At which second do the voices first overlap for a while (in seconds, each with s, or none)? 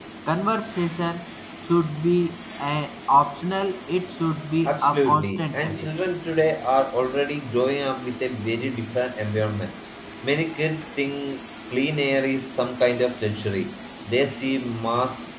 4.7 s